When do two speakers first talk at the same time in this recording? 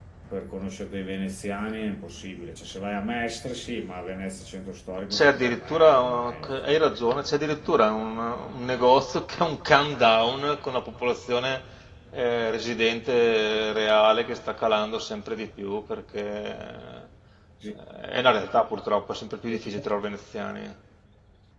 5 s

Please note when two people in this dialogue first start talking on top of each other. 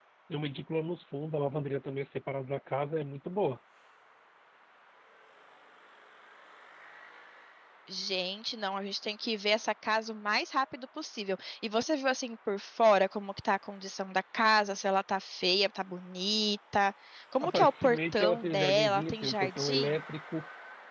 17 s

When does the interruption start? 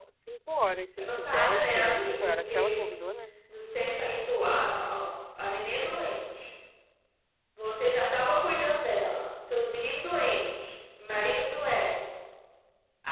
1 s

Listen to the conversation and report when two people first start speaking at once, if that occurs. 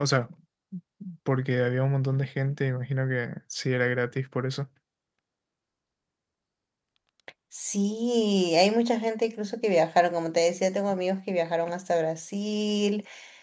none

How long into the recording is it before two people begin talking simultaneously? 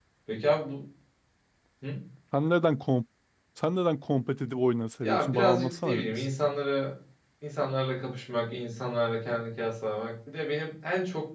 5 s

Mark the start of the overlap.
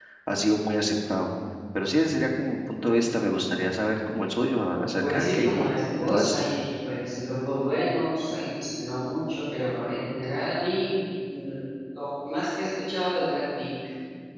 5 s

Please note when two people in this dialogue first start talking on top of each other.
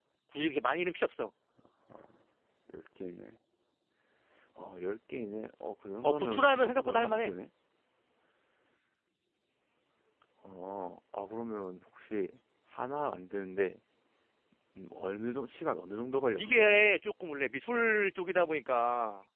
6 s

